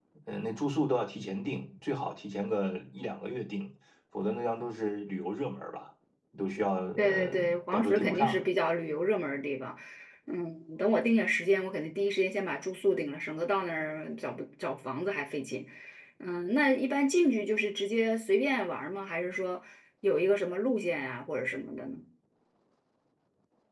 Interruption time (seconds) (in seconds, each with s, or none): 7.0 s